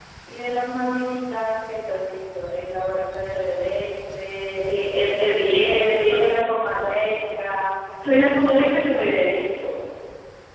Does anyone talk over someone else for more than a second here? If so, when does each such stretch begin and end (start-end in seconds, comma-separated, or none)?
none